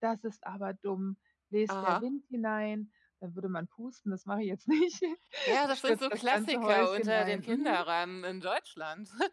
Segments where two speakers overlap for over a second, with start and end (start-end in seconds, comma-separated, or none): 5.7-7.8